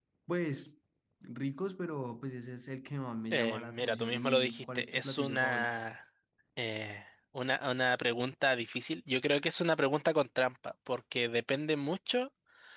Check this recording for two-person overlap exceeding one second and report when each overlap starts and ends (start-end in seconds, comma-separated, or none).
3.3-5.8